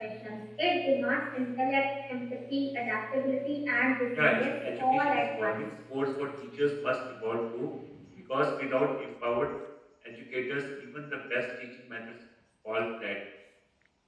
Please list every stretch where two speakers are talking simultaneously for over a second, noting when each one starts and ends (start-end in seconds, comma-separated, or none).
4.2-5.6